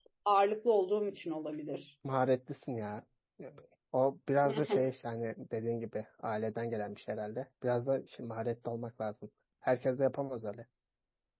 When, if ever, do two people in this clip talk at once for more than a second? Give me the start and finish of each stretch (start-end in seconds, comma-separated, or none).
none